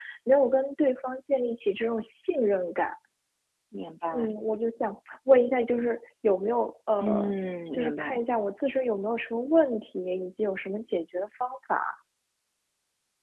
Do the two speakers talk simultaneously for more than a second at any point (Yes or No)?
No